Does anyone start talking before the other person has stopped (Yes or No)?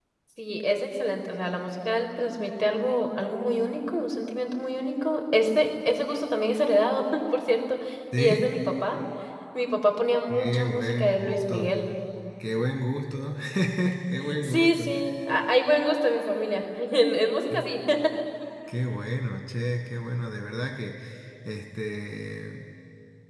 Yes